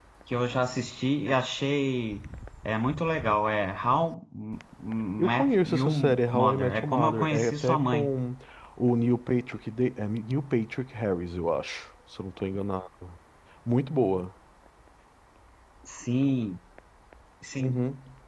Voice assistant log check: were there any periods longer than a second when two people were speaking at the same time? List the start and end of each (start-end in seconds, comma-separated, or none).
5.2-8.2